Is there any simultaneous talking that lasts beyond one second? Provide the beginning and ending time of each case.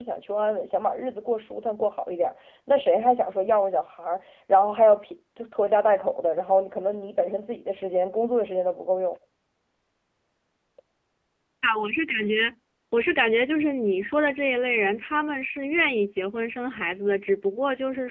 none

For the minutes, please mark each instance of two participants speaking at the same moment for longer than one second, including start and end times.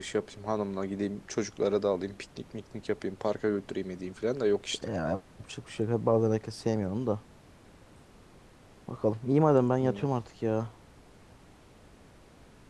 none

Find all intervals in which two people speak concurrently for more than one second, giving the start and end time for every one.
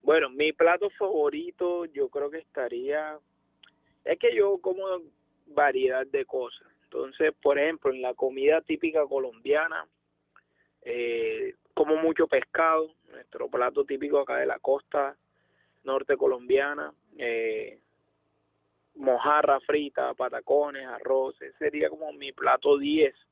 none

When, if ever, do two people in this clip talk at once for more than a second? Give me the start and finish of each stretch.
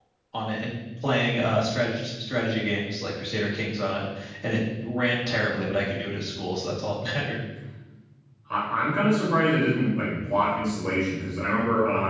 none

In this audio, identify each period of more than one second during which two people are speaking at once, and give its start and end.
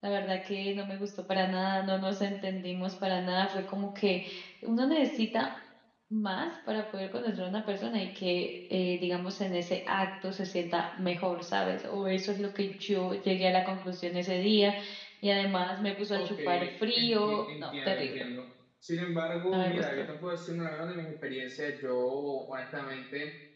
17.0-18.2

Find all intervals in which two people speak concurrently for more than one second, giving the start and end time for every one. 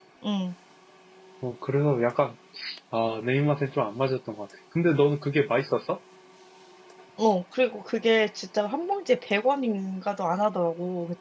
none

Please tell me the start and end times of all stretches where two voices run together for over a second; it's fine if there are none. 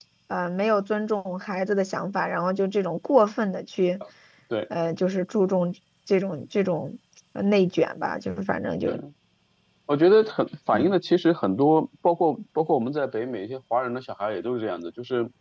none

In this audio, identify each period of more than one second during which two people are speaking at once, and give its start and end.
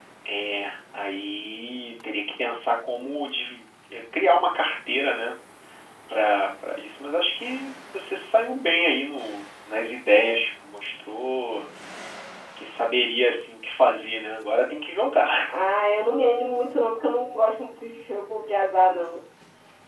none

